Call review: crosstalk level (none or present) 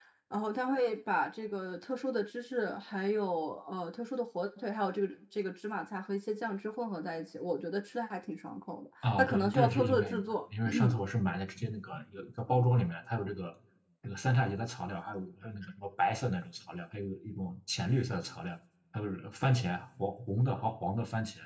present